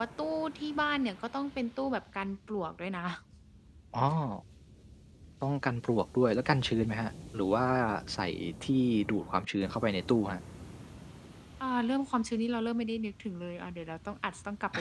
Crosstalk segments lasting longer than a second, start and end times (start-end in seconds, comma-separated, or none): none